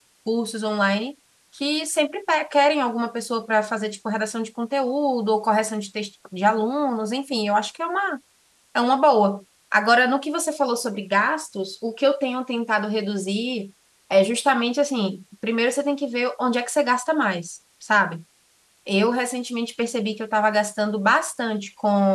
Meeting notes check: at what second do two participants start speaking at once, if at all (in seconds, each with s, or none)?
none